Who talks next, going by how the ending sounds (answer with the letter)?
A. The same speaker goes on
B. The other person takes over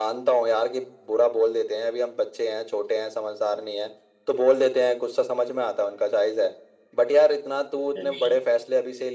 A